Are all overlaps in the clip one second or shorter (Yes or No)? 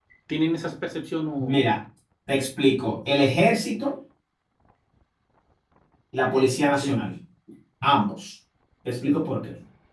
Yes